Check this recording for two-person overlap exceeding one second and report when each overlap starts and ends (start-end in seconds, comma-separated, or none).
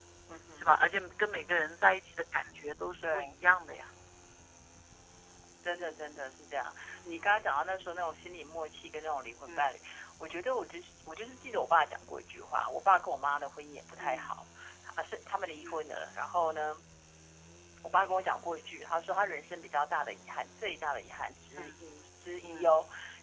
none